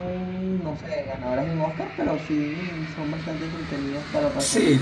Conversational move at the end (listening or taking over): taking over